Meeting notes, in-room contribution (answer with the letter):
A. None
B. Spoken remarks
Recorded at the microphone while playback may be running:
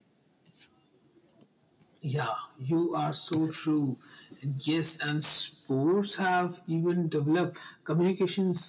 A